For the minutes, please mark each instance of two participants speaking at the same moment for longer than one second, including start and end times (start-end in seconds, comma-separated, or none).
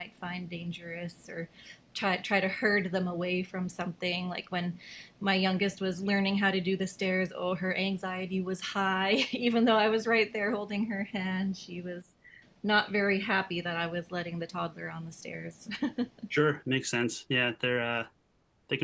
none